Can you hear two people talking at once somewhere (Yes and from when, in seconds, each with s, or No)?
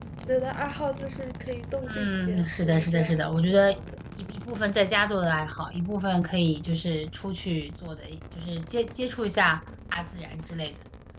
Yes, from 1.8 s